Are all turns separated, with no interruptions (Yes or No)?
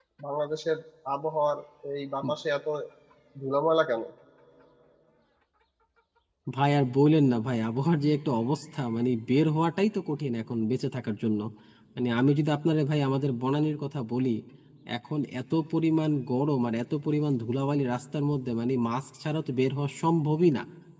Yes